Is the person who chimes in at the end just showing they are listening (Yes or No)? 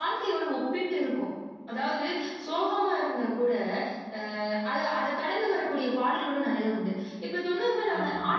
Yes